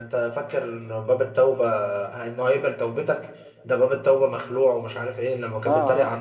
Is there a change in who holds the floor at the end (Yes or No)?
No